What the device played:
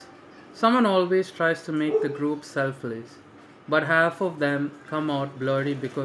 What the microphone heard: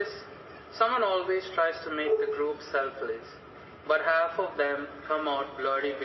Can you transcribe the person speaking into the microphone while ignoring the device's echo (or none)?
none